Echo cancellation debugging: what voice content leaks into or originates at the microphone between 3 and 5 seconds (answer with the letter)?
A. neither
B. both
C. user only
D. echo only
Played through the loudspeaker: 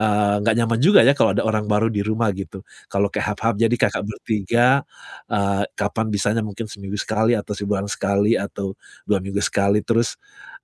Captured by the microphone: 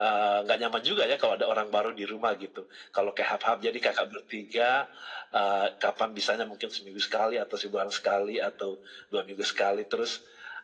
D